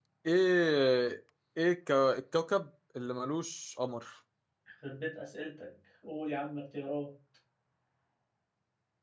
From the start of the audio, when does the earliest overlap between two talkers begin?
none

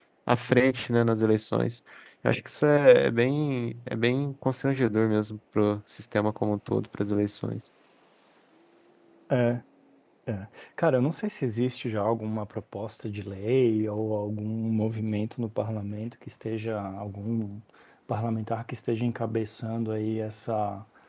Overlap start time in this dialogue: none

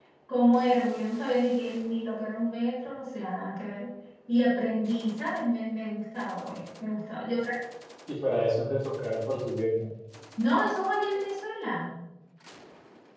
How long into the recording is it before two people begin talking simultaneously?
none

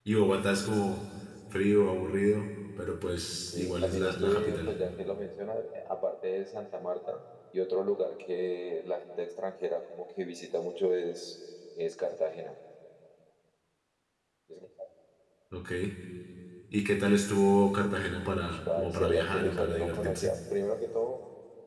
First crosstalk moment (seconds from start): 4 s

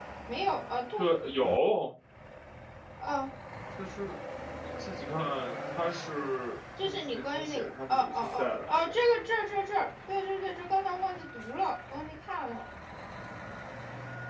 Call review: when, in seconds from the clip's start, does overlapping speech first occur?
7 s

